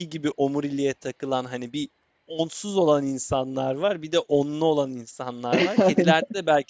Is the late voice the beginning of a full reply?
No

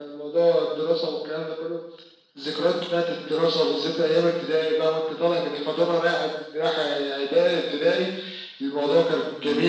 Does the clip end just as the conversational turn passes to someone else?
No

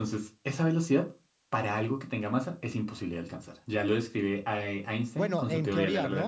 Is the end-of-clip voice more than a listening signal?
Yes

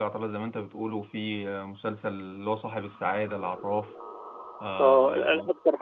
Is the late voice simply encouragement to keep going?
No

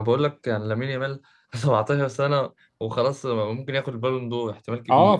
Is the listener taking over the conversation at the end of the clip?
Yes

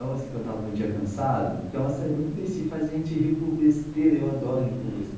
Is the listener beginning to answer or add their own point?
Yes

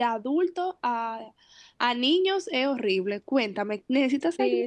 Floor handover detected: Yes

